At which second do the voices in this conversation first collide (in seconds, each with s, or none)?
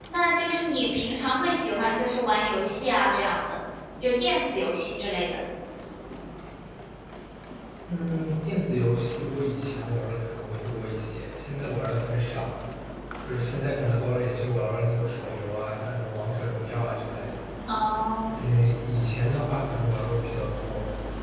none